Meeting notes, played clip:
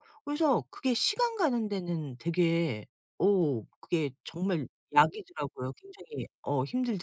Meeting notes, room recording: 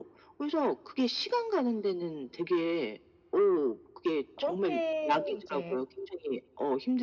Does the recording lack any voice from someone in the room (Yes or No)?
No